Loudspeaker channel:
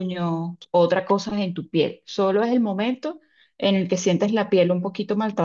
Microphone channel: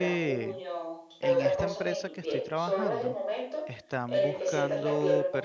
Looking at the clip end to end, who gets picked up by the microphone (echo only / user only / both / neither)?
both